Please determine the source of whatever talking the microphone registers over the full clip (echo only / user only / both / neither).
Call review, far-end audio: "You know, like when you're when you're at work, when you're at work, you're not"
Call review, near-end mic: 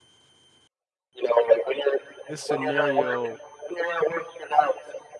both